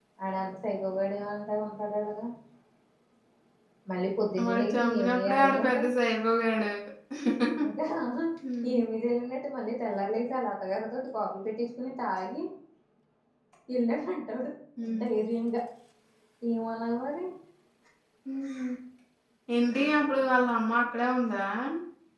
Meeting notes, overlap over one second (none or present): present